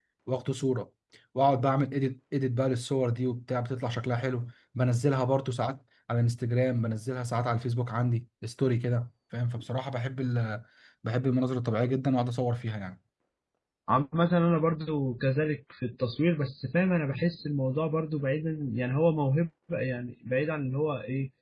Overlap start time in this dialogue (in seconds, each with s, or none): none